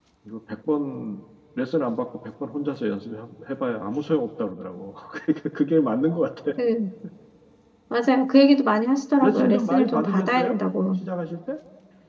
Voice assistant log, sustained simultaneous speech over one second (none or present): present